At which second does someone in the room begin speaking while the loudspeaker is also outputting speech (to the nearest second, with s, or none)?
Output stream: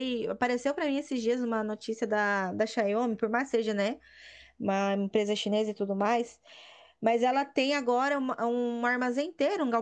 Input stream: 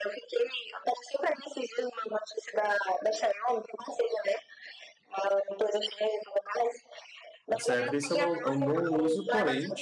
7 s